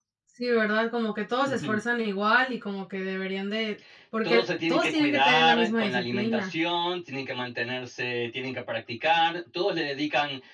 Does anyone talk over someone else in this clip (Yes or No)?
Yes